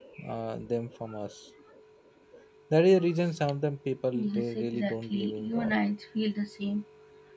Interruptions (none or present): present